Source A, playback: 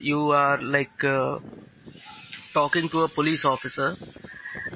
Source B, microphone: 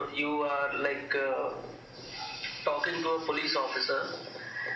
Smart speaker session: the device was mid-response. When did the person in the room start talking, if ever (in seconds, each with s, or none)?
none